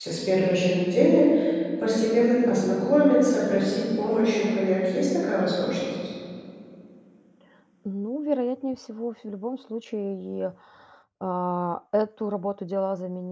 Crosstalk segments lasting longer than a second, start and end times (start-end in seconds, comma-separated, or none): none